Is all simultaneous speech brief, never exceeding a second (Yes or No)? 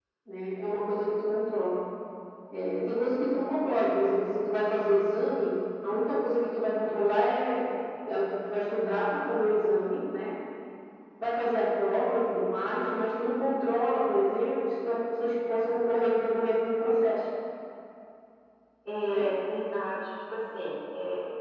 Yes